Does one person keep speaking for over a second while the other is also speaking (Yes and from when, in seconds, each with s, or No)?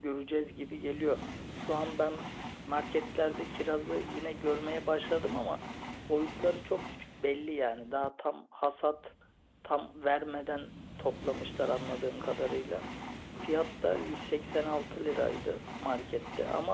No